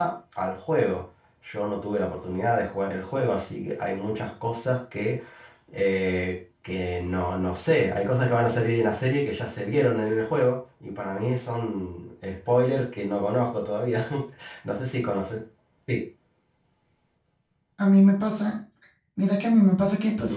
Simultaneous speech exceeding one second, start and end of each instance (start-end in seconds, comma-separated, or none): none